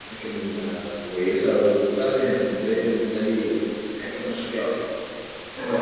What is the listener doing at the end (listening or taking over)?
taking over